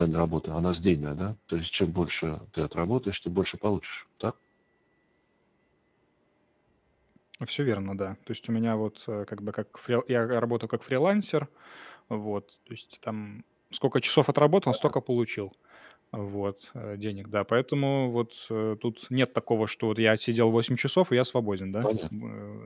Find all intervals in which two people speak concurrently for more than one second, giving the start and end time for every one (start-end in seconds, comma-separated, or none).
none